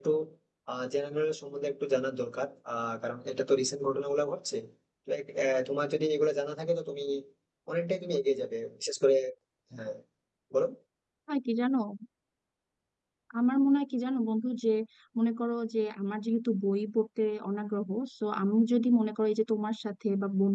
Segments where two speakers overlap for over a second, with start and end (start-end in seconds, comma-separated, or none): none